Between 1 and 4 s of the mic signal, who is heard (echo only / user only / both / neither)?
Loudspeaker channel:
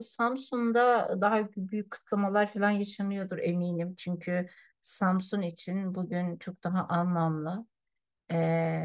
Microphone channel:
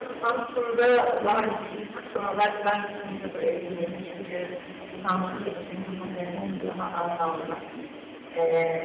both